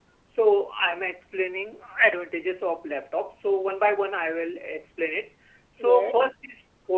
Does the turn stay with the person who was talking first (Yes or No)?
Yes